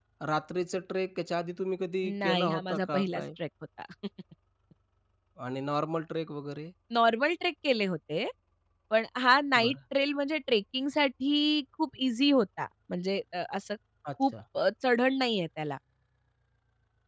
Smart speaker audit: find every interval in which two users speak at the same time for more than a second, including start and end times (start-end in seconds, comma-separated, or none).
2.0-3.2